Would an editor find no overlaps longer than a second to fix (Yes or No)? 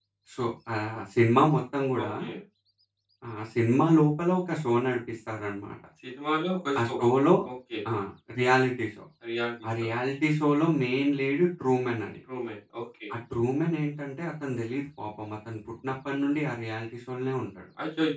Yes